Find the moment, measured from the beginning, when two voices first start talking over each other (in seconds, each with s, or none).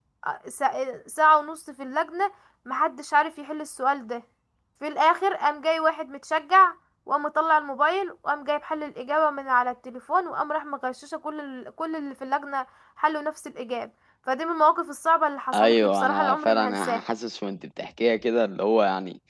15.5 s